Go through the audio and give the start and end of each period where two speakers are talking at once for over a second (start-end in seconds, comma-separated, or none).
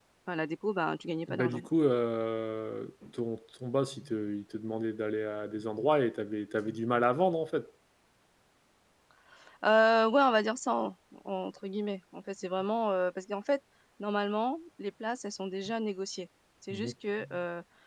none